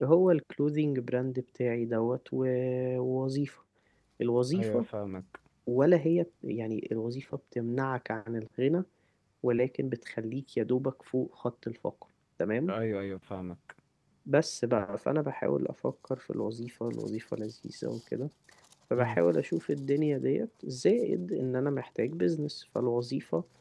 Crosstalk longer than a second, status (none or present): none